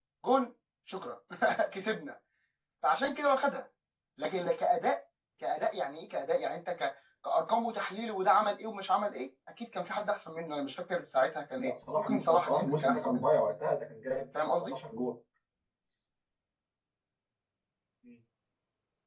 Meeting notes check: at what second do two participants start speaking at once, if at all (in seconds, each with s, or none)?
11.6 s